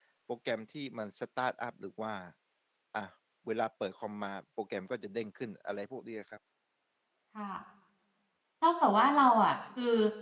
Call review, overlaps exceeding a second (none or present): none